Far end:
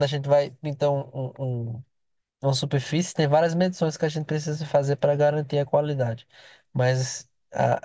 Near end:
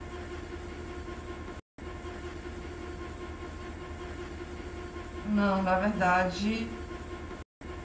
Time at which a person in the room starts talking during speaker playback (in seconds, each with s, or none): 5.2 s